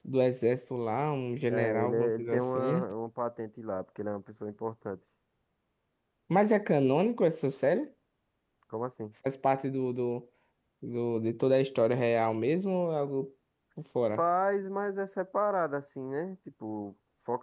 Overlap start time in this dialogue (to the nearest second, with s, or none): 2 s